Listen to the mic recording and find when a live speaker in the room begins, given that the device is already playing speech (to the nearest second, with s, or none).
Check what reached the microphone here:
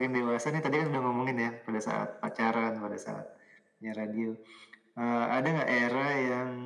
none